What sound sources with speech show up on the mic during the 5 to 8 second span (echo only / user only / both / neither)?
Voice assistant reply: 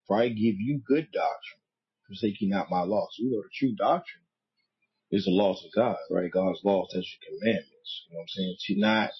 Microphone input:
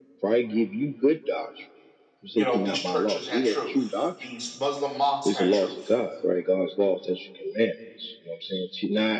both